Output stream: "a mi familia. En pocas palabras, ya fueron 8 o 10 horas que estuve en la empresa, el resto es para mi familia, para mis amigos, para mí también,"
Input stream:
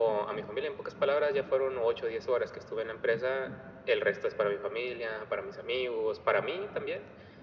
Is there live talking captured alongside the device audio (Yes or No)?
No